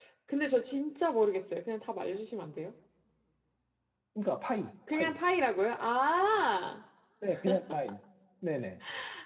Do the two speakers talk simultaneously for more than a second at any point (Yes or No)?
No